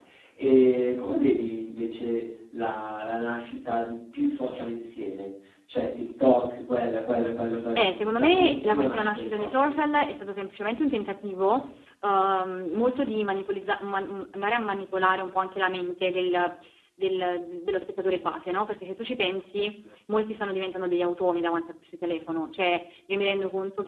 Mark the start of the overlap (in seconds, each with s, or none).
7.8 s